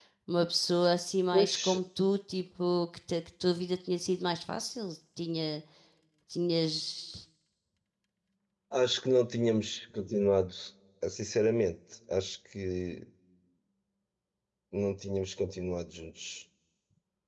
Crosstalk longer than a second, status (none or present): none